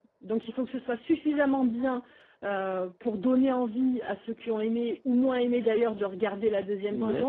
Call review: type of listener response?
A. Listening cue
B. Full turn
A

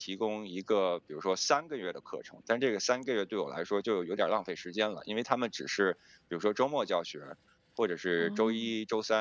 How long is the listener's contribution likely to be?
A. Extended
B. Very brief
B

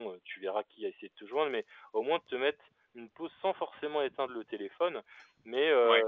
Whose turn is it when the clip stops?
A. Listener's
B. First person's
B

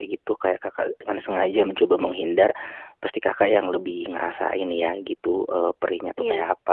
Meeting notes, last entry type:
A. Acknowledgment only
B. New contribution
A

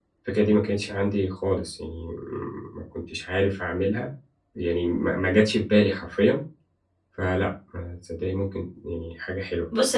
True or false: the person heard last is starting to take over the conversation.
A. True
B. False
A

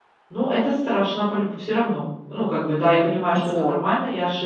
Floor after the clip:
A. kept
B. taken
A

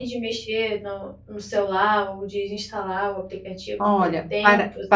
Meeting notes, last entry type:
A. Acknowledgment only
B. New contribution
B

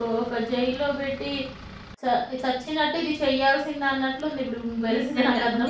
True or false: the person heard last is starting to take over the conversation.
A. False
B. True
B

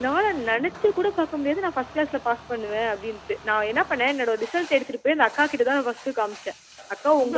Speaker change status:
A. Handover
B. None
B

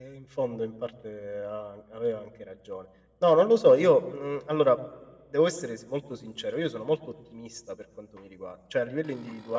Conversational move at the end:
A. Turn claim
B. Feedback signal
B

